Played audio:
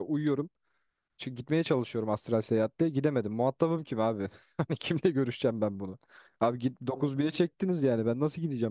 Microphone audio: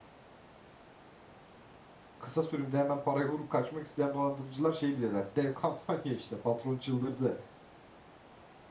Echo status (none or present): none